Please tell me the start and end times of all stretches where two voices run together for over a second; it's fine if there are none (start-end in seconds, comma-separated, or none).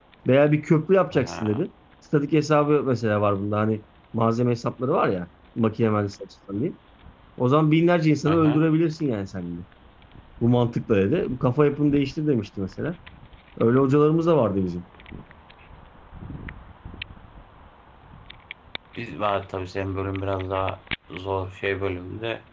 none